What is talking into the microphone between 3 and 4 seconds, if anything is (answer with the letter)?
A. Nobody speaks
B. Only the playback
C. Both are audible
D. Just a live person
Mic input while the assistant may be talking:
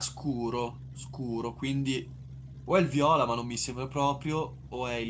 D